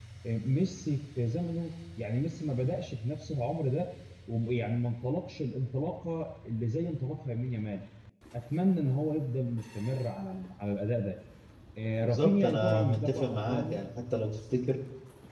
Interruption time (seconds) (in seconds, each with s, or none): 12.0 s